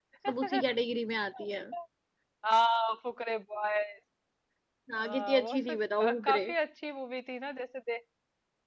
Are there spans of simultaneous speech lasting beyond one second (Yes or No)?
Yes